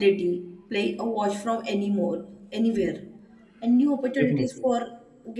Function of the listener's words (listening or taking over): listening